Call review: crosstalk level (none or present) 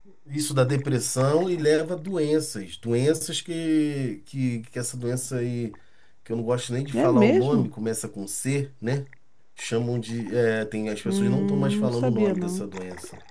present